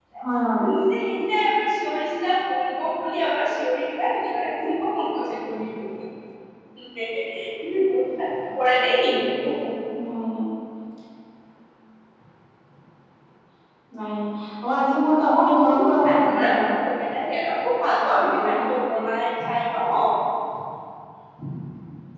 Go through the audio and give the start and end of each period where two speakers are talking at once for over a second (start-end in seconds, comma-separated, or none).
15.3-16.7